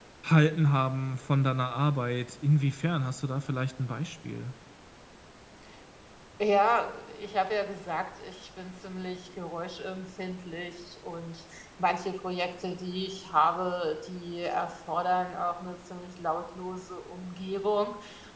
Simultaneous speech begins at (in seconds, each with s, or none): none